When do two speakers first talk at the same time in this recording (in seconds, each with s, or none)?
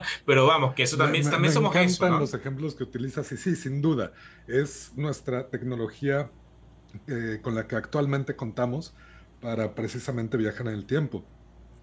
0.9 s